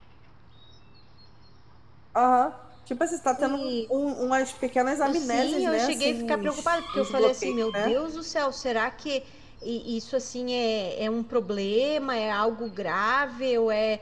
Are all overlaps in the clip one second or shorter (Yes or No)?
No